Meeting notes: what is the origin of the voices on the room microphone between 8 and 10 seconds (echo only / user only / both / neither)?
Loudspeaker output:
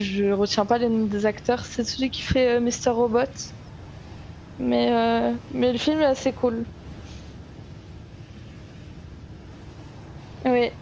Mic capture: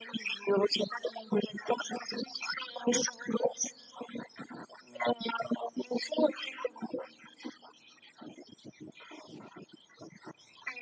neither